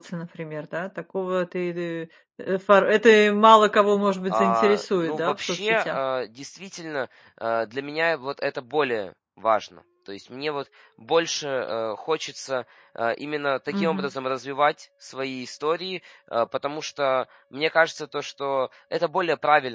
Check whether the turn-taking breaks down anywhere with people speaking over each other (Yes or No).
Yes